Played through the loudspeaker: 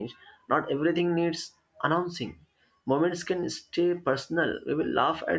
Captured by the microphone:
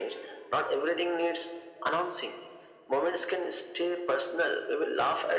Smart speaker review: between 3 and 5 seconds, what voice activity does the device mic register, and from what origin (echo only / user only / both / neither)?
echo only